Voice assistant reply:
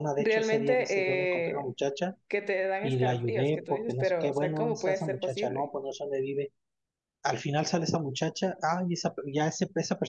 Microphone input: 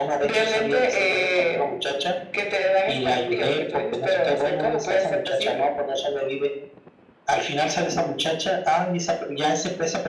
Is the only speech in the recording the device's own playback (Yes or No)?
Yes